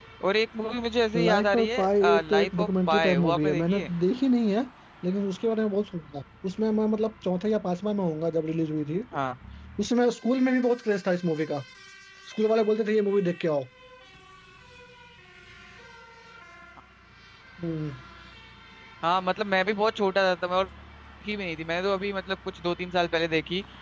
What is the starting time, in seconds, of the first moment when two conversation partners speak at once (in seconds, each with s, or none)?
1.1 s